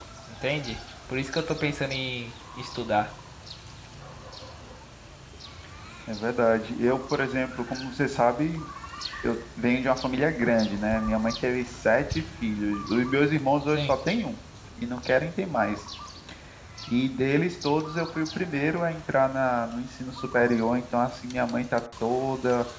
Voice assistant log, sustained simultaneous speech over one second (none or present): none